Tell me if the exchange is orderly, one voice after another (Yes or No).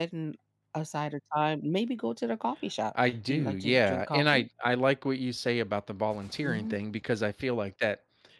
No